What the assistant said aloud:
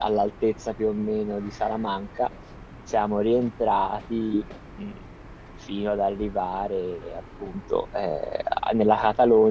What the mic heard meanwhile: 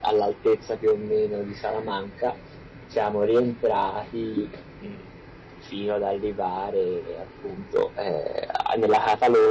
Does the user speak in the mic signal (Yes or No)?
No